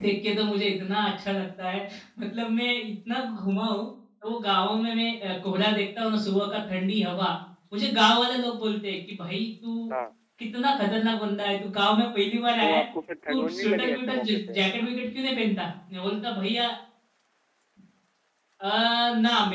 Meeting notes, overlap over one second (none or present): present